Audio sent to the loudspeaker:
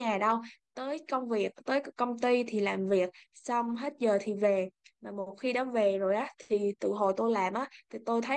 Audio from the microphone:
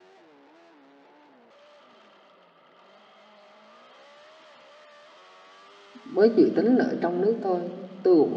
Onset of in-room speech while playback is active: 6.0 s

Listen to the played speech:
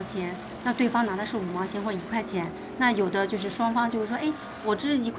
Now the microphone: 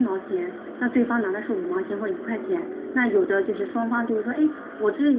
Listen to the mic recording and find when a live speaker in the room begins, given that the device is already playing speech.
none

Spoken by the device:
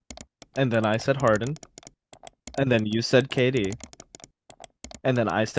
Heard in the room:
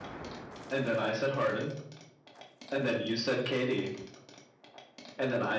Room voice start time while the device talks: none

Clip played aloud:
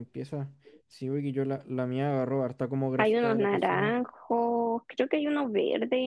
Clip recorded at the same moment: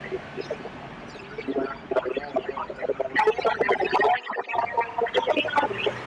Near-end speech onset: none

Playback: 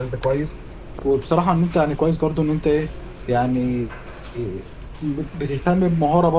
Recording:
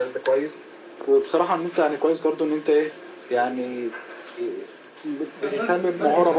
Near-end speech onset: 5.4 s

